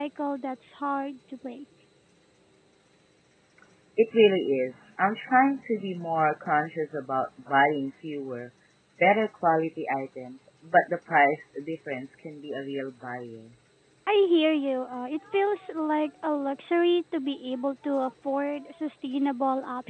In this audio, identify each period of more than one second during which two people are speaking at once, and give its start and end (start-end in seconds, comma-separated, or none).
none